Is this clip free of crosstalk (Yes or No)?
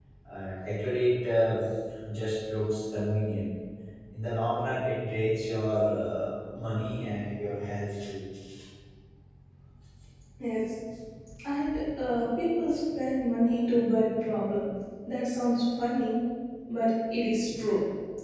Yes